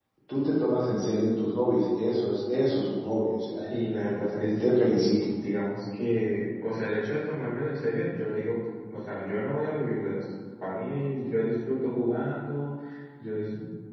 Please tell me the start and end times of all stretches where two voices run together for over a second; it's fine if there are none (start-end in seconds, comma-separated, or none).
3.6-5.2